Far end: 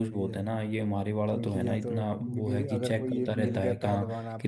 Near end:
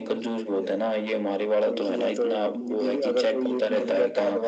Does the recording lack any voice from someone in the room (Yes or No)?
Yes